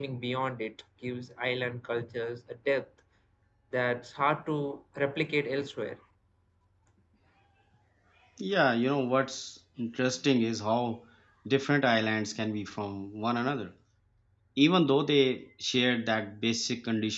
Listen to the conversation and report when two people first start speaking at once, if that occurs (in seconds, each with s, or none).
none